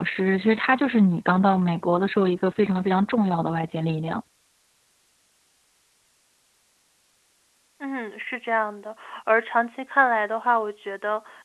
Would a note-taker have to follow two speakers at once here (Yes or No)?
No